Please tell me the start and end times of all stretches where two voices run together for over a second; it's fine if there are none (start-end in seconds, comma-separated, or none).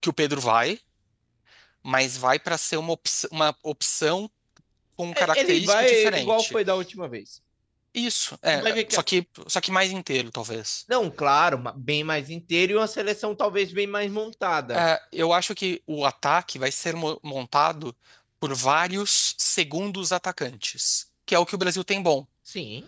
5.1-6.5